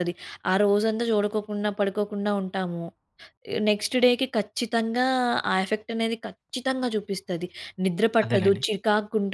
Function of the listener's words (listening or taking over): listening